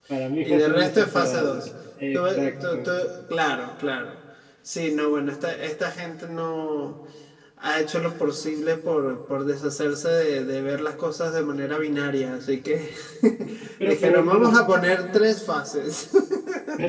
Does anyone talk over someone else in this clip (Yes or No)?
Yes